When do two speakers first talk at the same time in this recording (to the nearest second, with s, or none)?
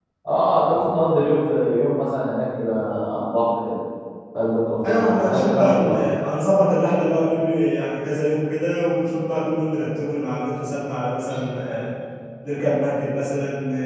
5 s